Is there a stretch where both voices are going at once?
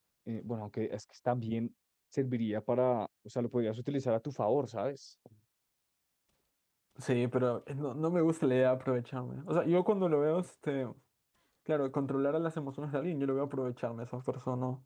No

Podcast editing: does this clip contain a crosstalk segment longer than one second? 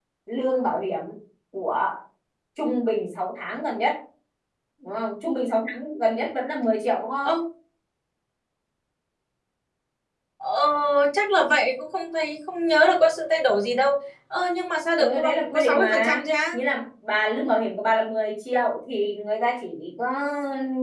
Yes, from 15.0 s

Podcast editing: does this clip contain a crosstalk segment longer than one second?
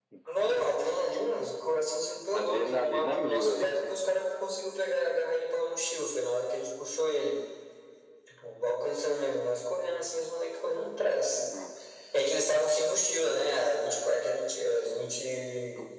Yes, from 2.3 s

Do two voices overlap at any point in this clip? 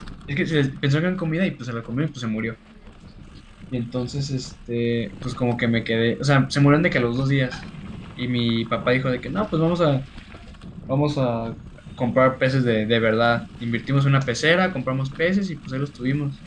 No

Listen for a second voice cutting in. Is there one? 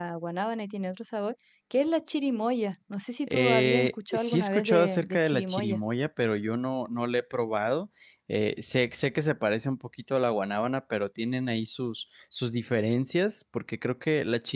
Yes, from 3.3 s

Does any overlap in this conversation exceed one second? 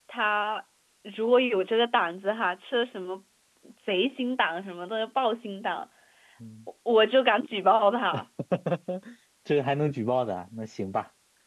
No

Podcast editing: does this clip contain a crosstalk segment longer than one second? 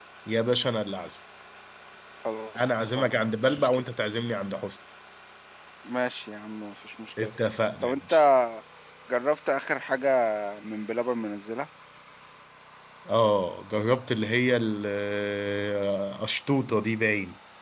Yes, from 2.6 s

